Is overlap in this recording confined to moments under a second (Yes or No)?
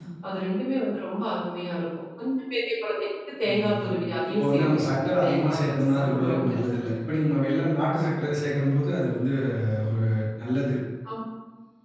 No